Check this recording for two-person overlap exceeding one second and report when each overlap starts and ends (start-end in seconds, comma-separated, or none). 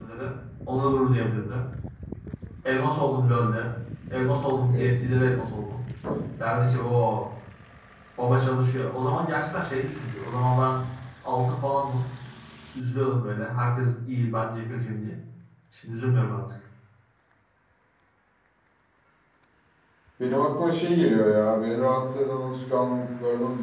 none